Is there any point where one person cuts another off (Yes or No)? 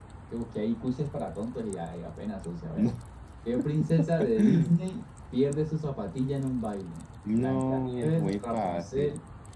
Yes